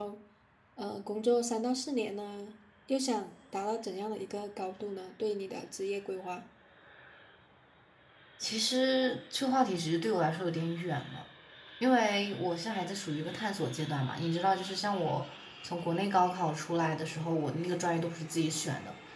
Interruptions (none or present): none